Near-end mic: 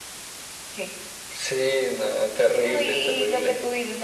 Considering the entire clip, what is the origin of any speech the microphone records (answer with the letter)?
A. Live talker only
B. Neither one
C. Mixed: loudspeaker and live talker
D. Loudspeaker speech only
D